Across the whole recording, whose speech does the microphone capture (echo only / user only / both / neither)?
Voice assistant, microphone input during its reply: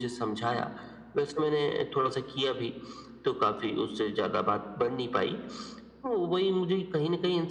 echo only